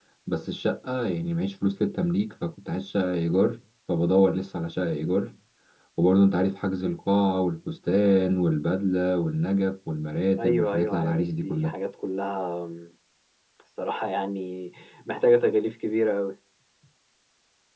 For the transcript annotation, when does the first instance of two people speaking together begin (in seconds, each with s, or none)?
10.4 s